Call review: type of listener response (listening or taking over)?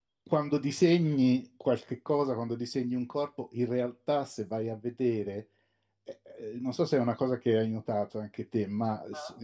listening